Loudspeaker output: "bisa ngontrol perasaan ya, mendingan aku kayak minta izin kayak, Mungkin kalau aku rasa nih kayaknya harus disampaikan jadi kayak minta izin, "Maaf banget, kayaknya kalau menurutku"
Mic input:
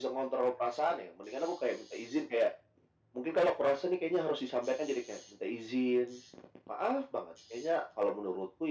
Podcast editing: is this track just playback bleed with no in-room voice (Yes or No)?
Yes